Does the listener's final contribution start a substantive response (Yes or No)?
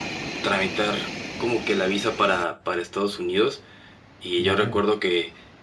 No